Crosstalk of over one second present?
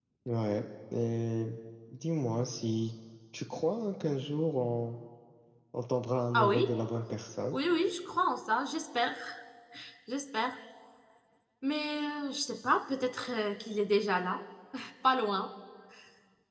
No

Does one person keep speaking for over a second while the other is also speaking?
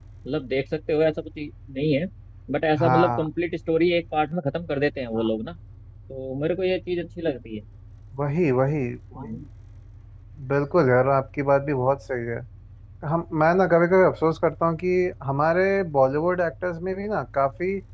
No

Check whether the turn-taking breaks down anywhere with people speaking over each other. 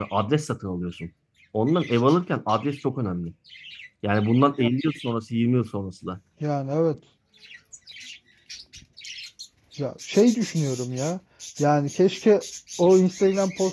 No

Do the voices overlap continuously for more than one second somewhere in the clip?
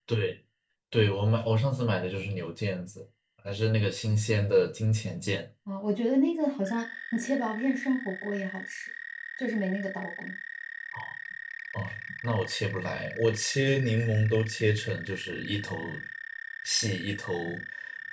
No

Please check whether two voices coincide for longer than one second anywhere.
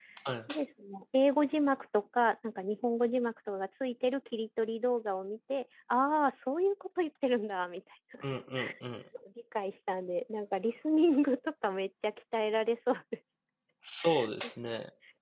No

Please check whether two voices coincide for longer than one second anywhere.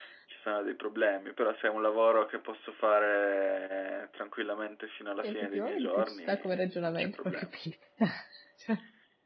Yes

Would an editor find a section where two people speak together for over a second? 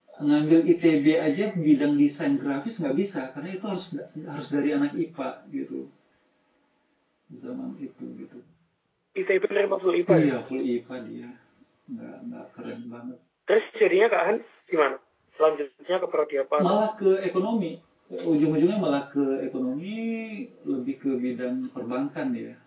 No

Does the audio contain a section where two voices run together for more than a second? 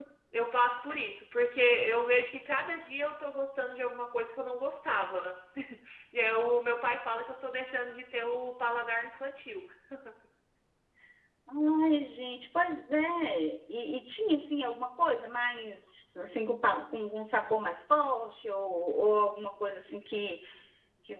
No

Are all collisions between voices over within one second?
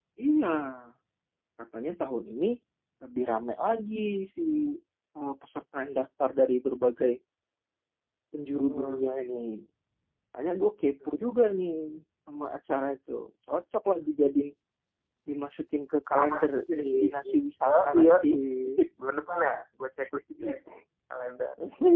No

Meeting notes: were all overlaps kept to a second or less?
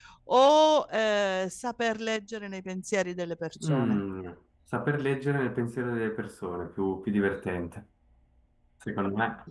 Yes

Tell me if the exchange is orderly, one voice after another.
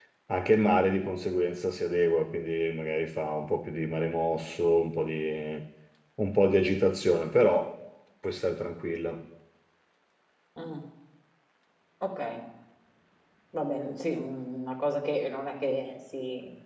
Yes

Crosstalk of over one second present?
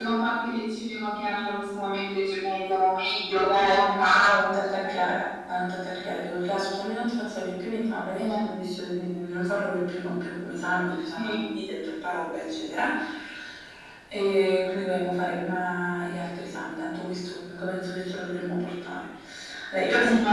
Yes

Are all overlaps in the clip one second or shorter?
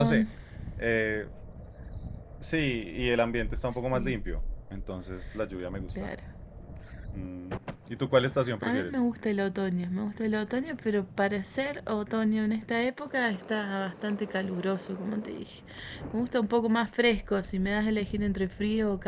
Yes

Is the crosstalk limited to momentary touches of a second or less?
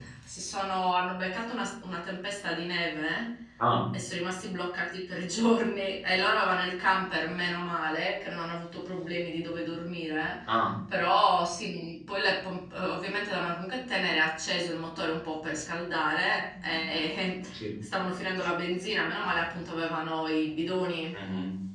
Yes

